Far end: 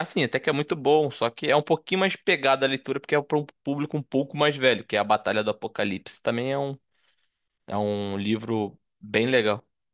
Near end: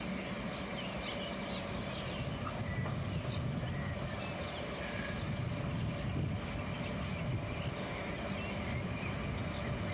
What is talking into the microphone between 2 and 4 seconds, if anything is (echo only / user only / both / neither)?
neither